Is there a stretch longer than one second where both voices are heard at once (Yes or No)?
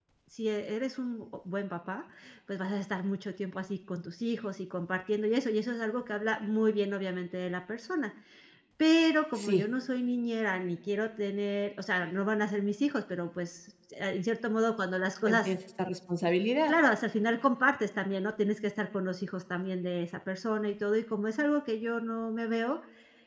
No